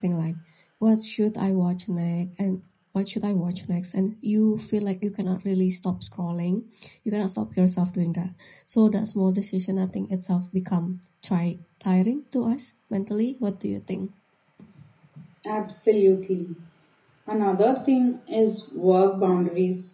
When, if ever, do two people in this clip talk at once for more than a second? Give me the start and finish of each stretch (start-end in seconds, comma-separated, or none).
none